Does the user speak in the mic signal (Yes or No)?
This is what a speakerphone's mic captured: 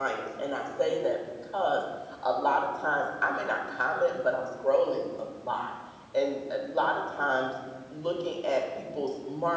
Yes